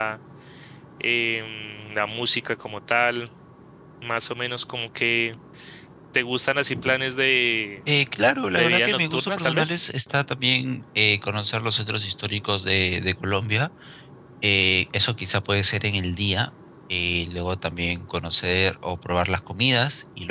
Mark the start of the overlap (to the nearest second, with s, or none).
9 s